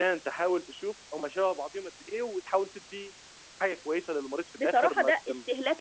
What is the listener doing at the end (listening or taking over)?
taking over